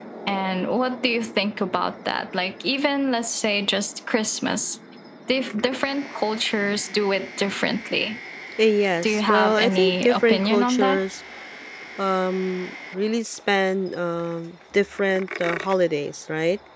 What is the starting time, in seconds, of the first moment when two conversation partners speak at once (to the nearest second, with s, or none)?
9 s